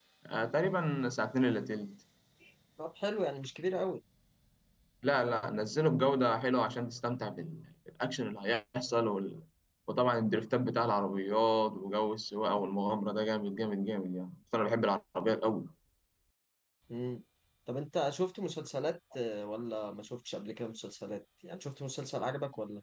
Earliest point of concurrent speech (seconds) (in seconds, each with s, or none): none